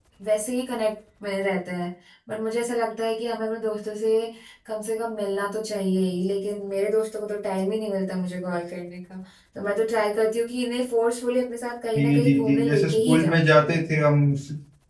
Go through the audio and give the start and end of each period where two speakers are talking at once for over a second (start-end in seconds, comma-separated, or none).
11.9-13.3